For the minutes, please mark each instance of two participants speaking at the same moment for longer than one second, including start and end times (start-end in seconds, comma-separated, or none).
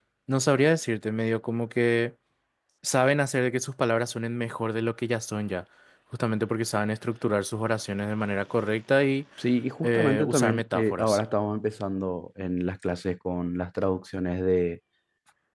9.8-11.2